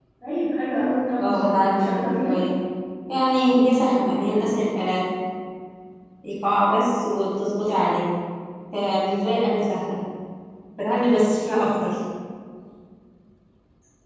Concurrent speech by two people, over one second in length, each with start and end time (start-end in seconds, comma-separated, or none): 1.2-2.4